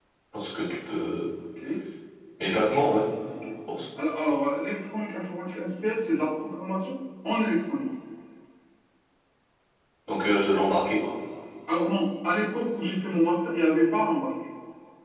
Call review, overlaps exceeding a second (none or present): none